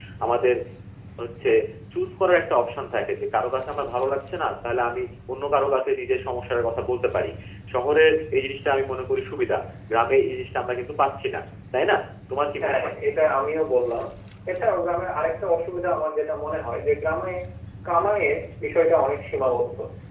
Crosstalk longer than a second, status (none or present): none